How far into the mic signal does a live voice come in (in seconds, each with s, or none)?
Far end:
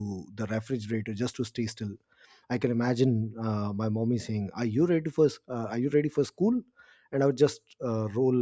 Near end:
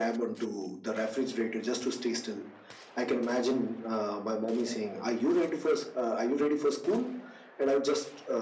none